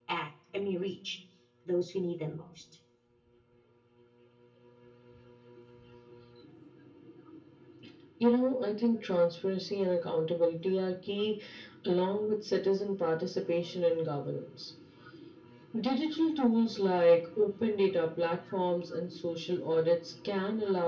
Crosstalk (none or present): none